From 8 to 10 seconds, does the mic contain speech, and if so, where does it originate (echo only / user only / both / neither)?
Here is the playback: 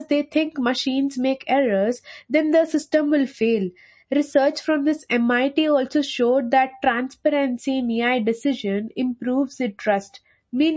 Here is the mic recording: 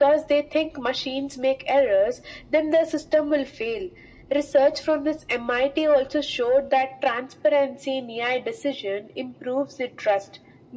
echo only